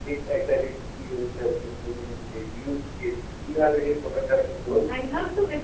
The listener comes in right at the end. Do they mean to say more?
Yes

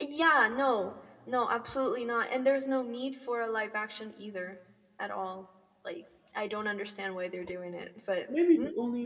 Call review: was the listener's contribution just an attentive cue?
No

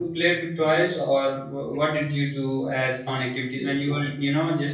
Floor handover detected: No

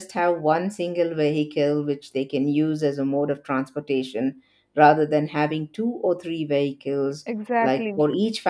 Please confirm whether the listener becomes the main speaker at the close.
No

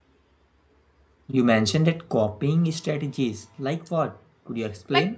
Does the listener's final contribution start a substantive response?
Yes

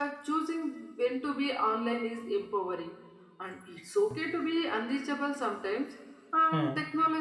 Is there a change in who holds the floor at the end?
No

